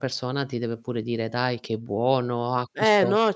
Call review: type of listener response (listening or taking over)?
taking over